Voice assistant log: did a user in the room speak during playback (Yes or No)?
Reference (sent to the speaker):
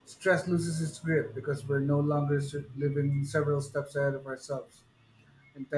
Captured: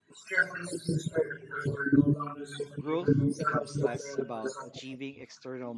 Yes